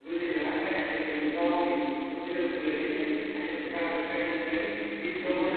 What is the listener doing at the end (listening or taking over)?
listening